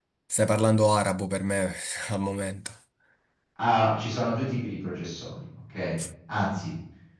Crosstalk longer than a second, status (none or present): none